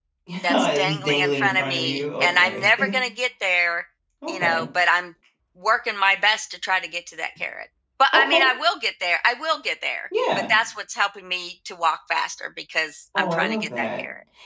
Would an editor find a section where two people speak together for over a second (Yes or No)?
Yes